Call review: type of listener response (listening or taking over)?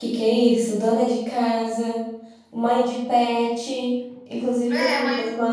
taking over